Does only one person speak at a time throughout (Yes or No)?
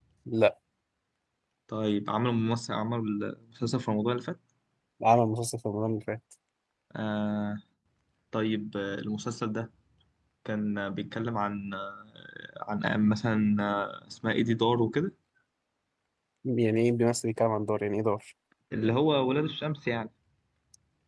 Yes